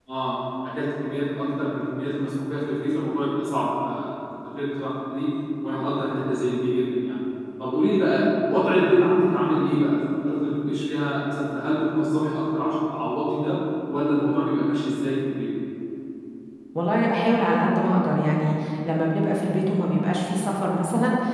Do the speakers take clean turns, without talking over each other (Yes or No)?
Yes